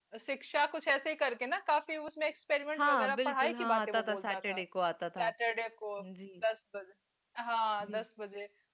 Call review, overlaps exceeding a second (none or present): present